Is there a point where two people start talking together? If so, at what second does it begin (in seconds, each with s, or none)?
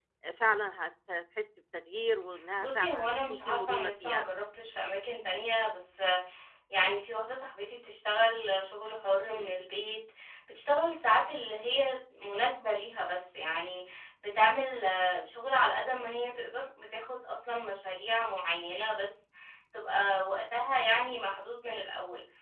2.6 s